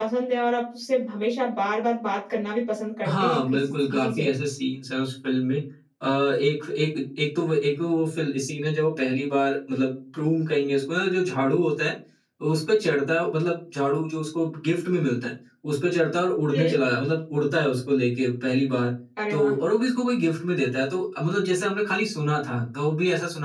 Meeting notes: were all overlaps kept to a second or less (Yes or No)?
No